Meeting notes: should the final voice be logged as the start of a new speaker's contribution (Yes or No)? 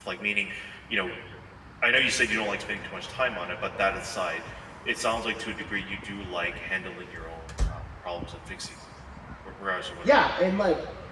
Yes